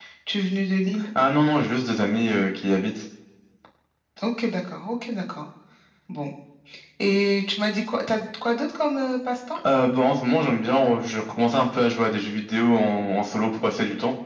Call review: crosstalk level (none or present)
none